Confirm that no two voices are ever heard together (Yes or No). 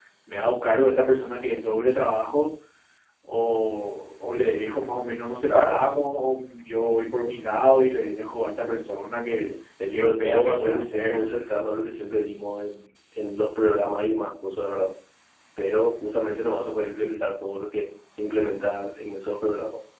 No